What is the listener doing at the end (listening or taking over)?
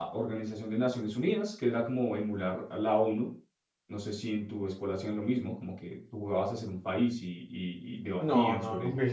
taking over